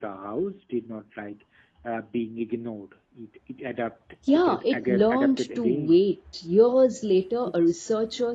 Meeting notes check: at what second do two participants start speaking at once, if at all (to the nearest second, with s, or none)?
4 s